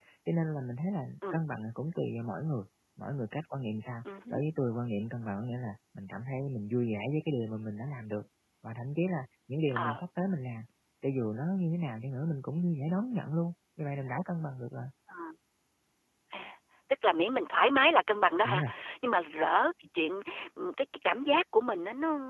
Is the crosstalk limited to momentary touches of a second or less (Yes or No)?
Yes